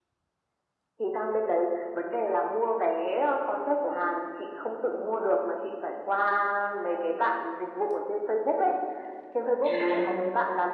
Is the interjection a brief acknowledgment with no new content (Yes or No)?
Yes